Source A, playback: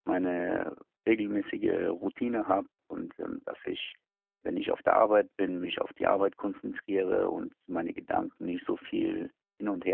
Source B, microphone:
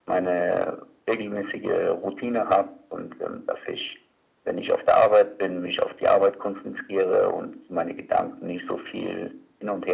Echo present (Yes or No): Yes